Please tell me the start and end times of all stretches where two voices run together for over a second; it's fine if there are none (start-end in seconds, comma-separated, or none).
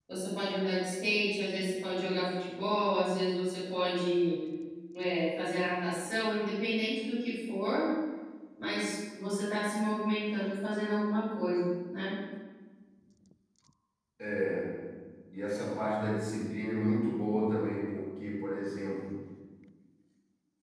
none